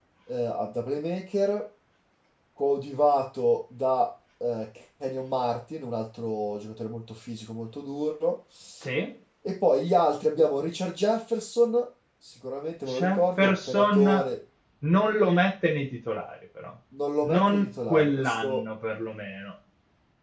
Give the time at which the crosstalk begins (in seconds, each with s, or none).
12.9 s